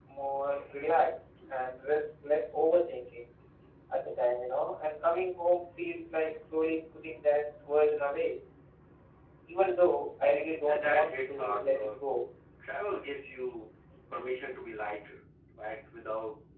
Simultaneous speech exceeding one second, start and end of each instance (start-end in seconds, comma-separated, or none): 10.6-12.1